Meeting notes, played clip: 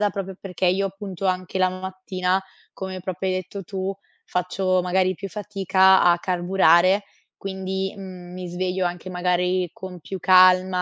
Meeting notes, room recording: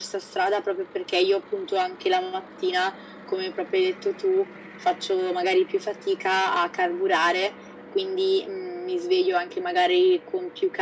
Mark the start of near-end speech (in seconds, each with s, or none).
none